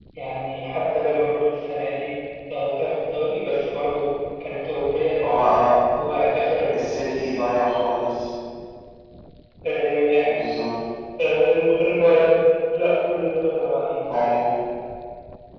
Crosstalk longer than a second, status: none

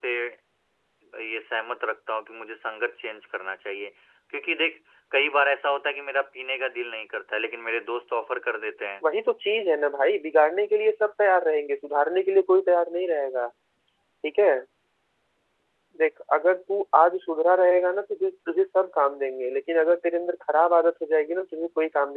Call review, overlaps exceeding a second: none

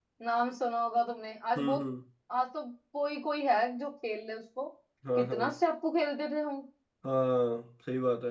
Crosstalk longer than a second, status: none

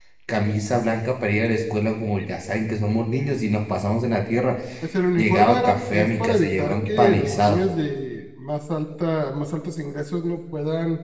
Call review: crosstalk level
present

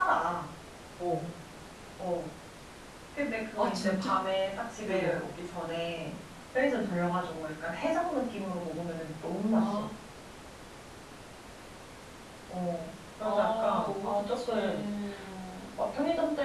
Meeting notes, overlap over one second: present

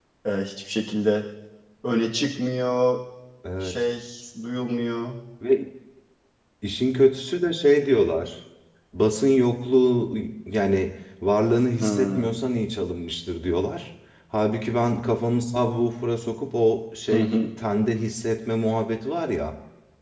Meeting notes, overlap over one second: none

